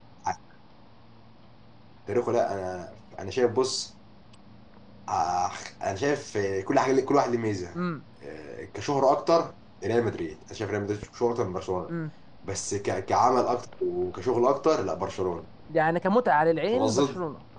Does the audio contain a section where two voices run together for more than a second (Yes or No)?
No